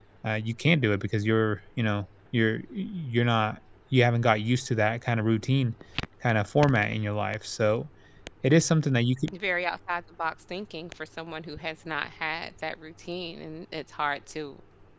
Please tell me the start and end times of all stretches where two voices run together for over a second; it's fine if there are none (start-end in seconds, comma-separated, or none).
none